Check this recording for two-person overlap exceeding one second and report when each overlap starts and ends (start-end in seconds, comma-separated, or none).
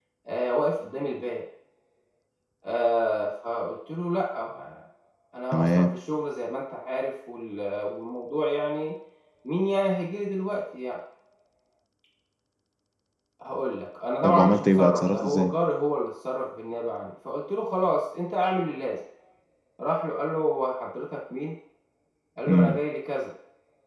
14.2-15.5